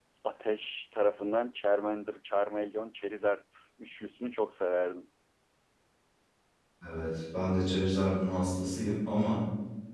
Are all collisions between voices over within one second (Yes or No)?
Yes